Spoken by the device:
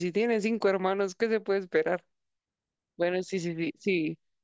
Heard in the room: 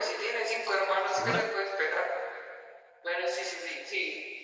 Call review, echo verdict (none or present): present